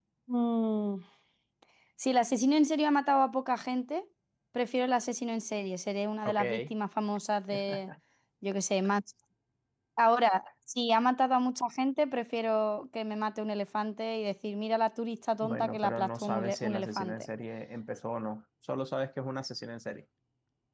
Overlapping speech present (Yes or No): Yes